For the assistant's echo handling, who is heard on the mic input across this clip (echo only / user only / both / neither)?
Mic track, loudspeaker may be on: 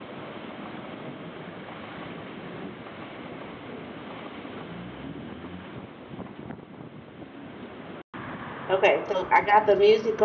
user only